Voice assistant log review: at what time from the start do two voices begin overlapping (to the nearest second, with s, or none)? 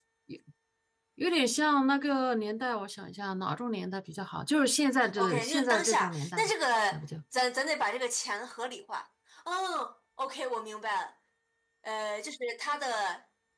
5 s